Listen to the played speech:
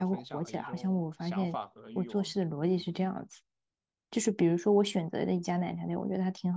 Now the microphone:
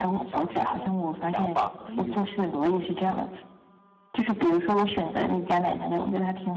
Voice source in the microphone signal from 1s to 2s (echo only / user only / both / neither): echo only